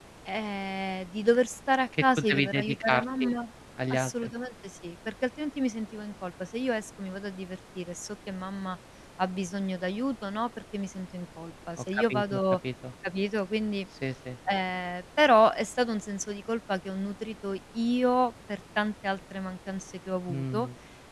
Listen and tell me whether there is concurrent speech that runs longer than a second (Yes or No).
Yes